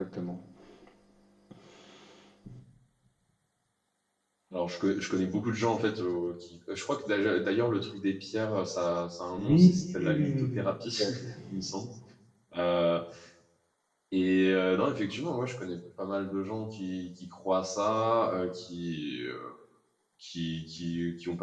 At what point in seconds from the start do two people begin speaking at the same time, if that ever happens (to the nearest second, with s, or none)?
9 s